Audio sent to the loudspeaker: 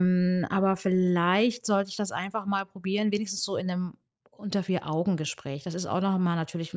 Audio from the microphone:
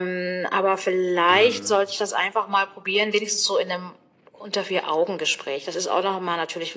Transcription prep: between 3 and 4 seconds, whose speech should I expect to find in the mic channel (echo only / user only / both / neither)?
echo only